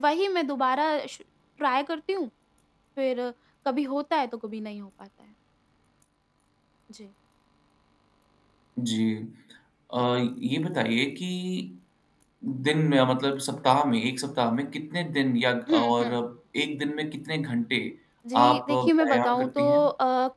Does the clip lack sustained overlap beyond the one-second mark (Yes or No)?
No